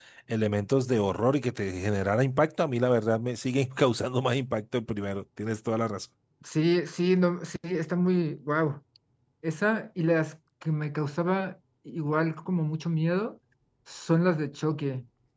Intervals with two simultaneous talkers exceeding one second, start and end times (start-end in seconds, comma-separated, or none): none